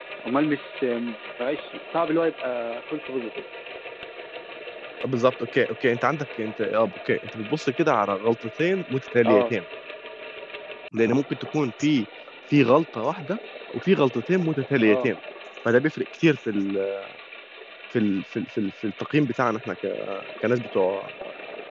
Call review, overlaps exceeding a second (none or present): none